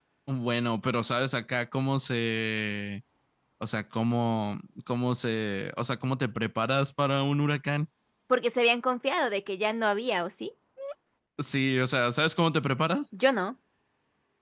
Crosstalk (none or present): none